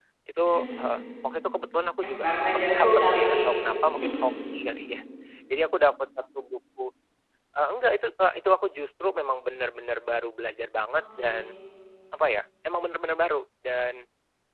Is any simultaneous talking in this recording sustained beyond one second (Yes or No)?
Yes